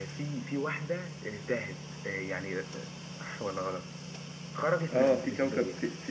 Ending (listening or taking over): taking over